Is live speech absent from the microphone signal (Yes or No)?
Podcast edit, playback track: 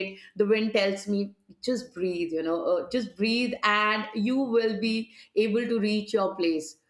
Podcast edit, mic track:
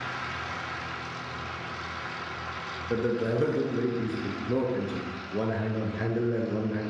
No